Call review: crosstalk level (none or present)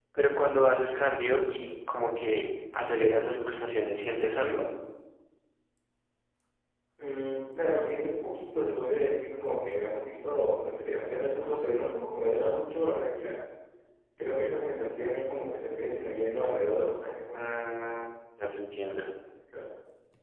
none